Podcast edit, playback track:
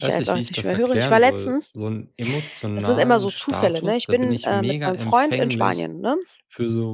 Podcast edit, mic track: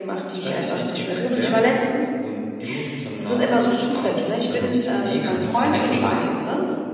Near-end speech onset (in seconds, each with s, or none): 4.5 s